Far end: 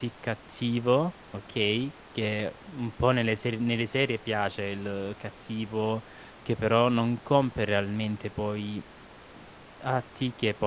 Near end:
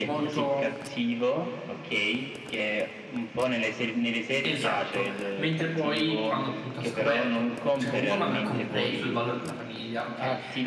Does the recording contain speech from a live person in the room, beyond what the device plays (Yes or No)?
Yes